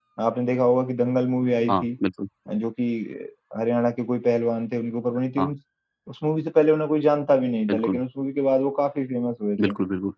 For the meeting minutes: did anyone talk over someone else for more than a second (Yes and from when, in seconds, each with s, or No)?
No